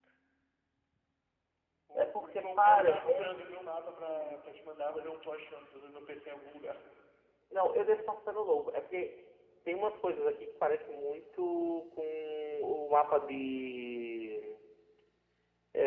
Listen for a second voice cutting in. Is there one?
Yes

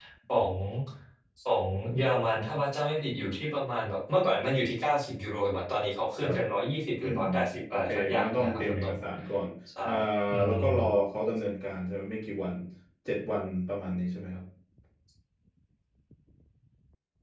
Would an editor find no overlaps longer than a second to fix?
No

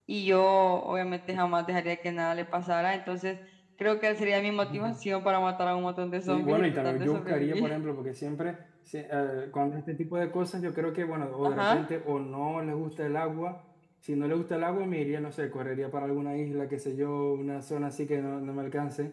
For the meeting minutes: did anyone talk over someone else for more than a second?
Yes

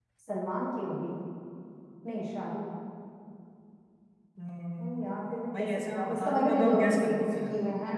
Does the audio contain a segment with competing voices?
Yes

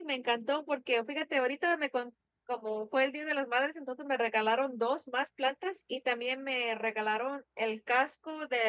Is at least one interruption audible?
No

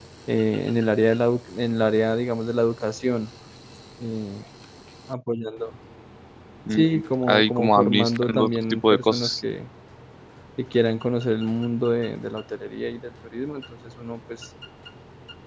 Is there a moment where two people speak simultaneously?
Yes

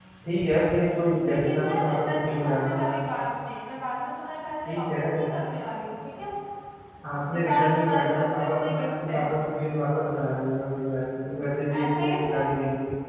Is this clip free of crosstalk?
No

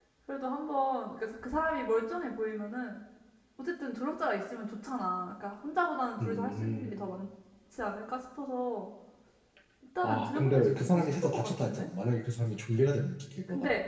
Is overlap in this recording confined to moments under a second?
No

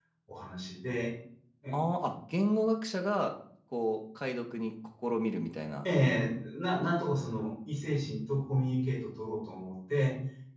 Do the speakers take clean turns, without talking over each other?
Yes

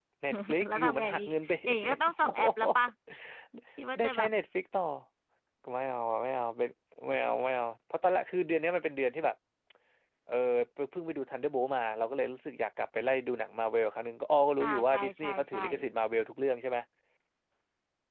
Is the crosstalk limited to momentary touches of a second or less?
No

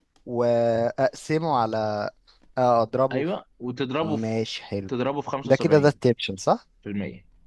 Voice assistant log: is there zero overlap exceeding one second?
Yes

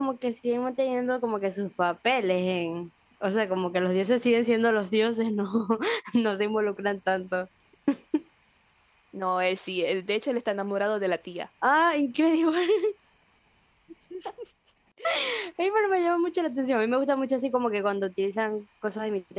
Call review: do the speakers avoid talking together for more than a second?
Yes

